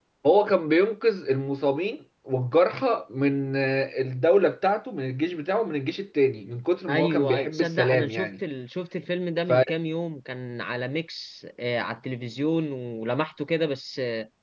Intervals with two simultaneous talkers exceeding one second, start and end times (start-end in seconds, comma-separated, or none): 6.9-8.3